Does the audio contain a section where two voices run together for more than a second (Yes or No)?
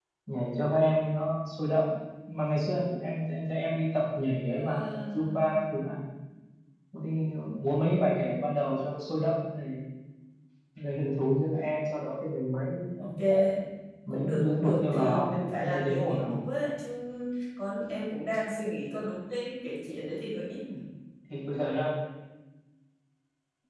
Yes